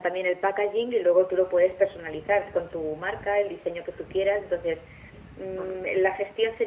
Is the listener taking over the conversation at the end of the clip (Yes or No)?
No